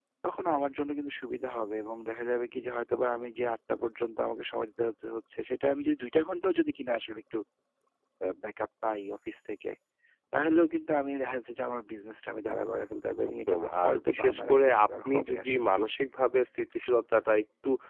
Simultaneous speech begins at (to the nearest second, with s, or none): 13 s